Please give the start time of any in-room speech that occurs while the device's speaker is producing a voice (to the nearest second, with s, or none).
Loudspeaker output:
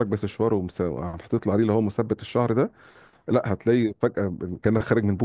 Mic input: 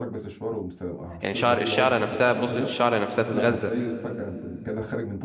1 s